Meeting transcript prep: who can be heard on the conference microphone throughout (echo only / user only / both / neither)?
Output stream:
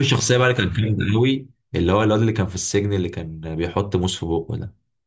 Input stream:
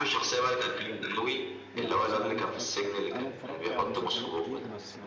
both